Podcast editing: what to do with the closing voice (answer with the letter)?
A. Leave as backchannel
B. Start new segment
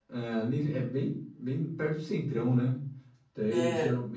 A